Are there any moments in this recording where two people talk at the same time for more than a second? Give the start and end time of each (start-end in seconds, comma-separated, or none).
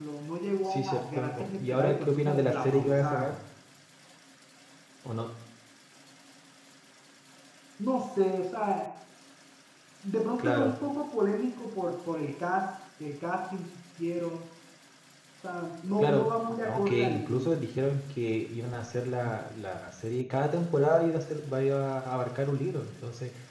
0.7-3.4, 16.0-17.6